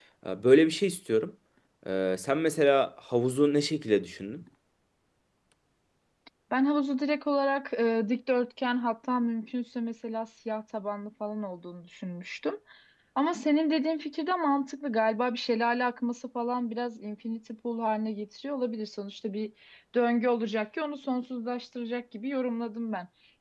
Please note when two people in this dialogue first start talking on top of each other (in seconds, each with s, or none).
none